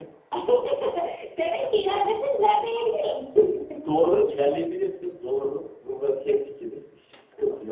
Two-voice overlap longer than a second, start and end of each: none

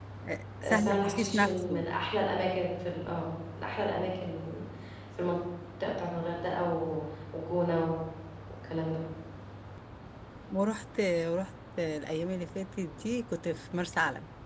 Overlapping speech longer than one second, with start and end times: 0.6-1.9

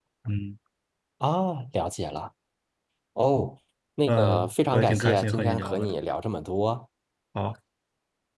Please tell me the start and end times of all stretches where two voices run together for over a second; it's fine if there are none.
4.1-5.9

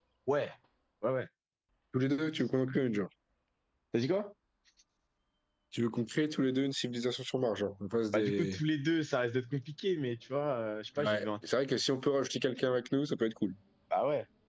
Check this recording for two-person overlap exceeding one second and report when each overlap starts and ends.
none

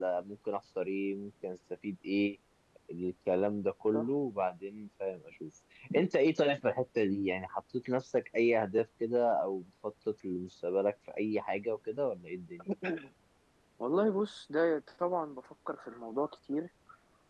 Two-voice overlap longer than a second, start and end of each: none

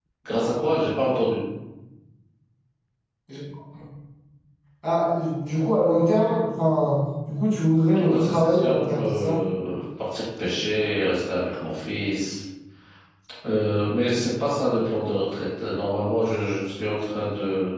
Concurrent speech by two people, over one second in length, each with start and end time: 8.0-9.4

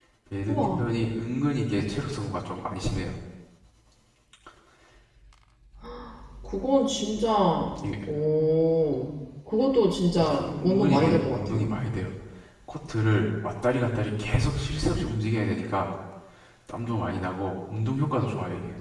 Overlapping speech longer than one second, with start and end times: 10.2-11.7

